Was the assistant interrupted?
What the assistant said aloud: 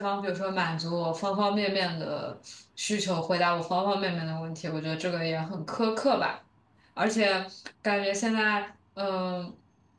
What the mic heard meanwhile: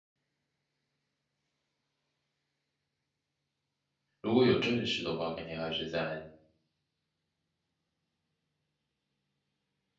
Yes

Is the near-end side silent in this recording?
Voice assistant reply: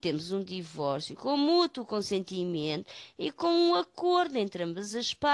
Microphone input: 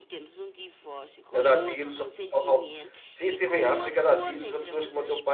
No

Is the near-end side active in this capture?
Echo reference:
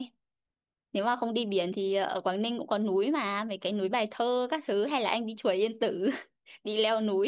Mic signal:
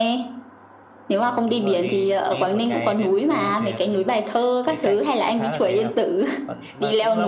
Yes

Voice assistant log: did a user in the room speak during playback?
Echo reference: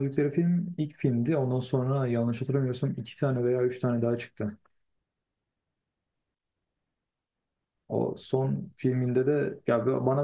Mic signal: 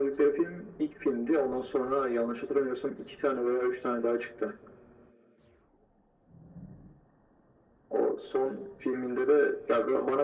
No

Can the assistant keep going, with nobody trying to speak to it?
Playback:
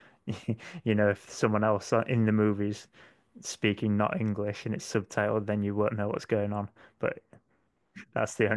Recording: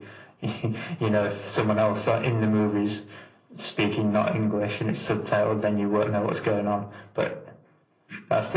Yes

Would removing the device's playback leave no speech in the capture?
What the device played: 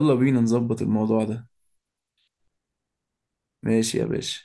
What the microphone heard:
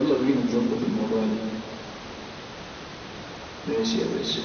Yes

